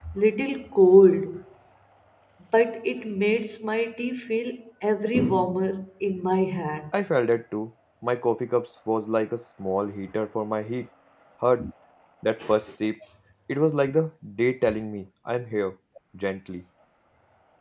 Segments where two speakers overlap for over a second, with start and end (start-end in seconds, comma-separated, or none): none